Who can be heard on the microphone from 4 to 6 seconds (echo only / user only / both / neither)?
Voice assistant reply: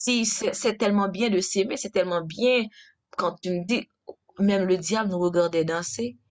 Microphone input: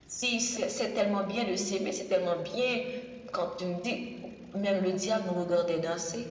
echo only